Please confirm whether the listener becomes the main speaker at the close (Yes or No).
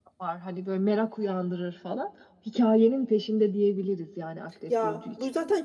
Yes